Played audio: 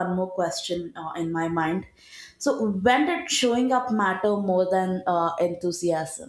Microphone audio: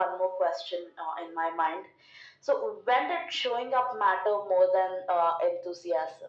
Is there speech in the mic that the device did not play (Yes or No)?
No